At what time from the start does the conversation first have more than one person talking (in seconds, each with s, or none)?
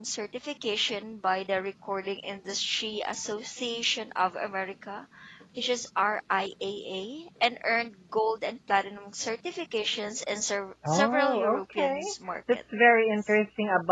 10.8 s